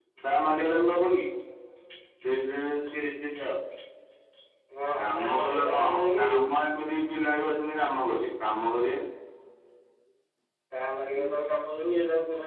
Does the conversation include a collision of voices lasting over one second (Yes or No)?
Yes